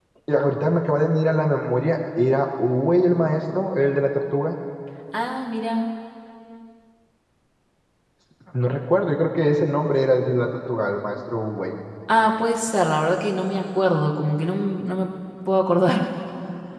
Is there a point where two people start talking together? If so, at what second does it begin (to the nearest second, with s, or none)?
none